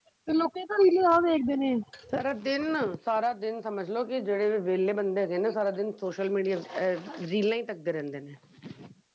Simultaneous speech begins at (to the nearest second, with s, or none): none